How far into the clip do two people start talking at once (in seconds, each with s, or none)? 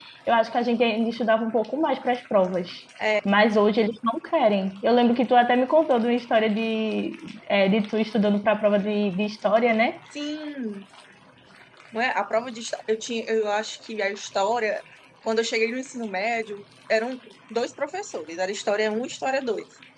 none